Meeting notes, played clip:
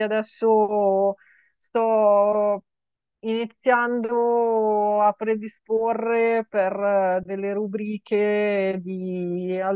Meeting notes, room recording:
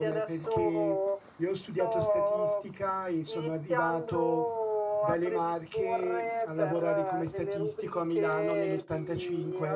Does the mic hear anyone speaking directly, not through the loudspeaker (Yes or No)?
Yes